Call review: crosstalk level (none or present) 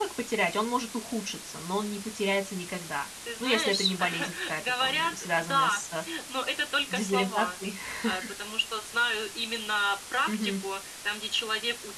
present